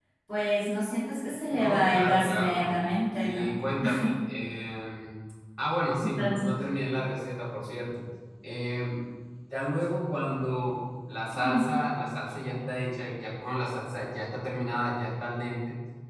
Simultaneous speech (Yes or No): Yes